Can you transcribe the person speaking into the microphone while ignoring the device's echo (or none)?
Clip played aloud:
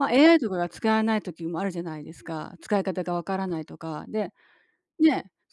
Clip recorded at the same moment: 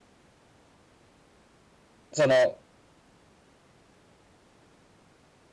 その、